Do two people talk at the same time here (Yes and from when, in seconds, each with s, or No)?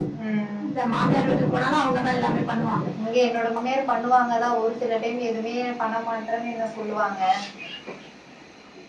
No